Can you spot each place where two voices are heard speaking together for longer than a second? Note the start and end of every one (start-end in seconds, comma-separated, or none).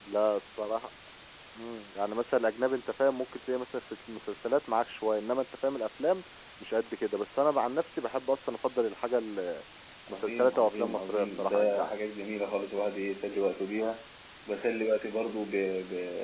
10.1-11.9